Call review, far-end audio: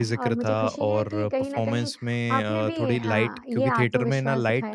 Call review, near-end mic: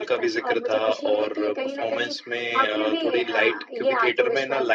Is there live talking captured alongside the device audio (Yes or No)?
No